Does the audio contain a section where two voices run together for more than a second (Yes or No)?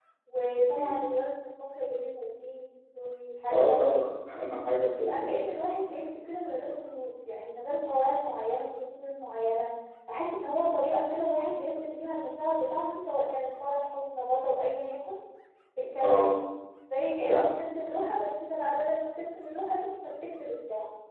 No